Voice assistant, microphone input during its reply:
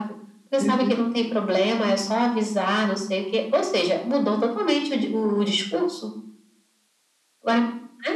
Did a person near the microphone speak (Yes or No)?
Yes